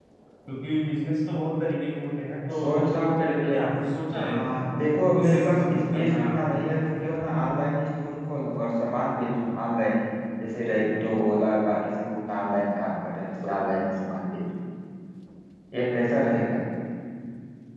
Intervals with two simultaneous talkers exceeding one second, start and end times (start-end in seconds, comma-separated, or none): 5.2-6.6